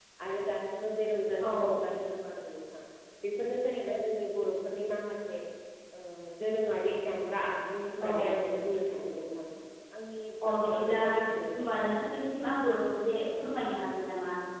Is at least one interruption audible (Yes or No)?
Yes